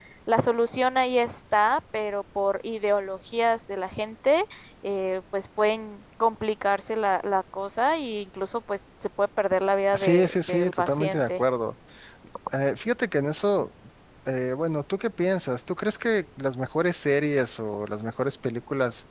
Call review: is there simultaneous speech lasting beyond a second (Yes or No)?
Yes